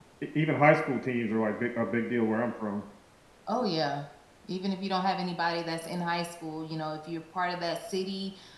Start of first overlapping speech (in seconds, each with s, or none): none